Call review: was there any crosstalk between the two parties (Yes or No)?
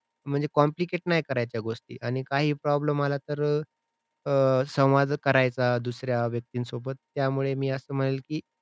No